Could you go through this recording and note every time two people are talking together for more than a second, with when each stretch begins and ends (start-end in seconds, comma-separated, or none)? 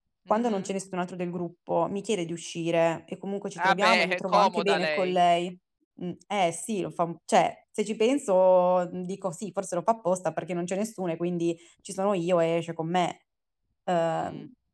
3.6-5.2